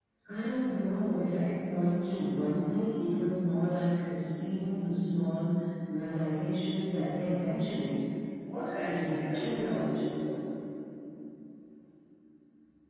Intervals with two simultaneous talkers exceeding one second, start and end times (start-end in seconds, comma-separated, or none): 8.8-10.1